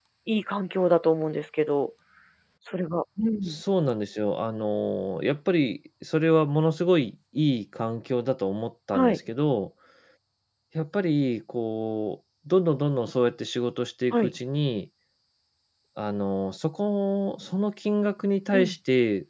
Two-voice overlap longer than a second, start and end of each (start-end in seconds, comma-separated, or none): none